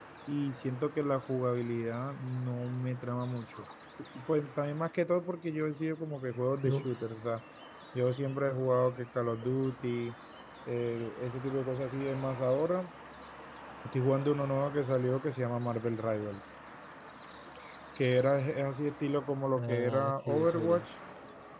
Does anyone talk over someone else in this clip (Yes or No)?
Yes